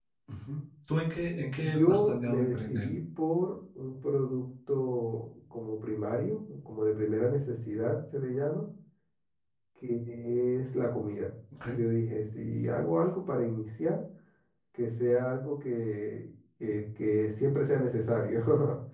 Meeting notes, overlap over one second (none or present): present